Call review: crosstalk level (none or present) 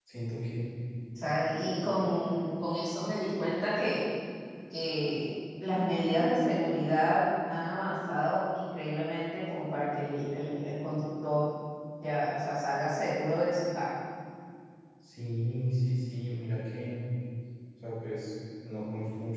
none